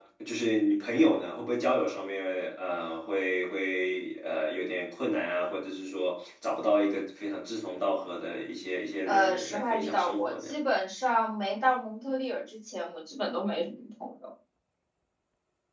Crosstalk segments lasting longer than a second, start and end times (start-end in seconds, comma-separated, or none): 9.1-10.5